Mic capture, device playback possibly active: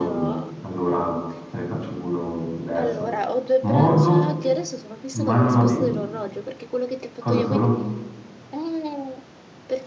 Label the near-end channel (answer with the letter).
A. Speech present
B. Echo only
A